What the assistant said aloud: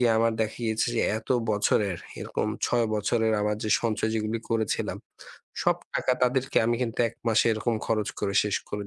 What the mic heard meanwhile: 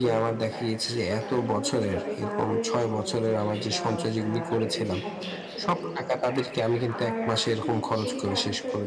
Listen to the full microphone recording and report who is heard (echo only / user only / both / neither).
both